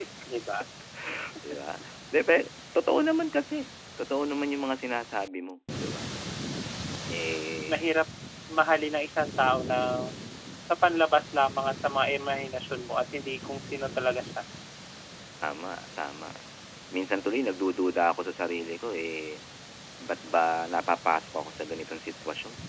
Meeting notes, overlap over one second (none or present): none